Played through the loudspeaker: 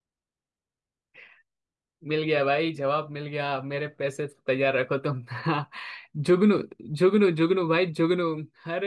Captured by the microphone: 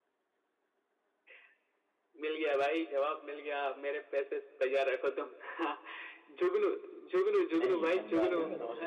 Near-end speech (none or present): present